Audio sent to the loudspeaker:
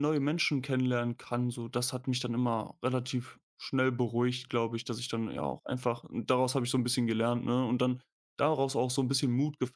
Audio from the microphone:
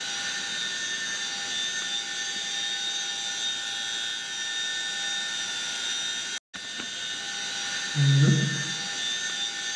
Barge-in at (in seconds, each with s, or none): 7.9 s